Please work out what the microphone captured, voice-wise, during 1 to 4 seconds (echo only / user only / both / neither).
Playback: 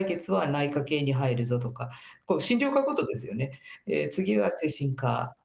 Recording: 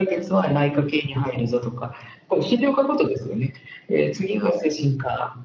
echo only